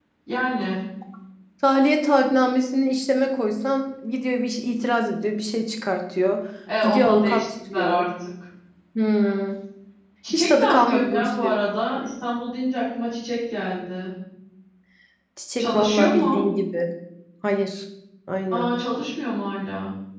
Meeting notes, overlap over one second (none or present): present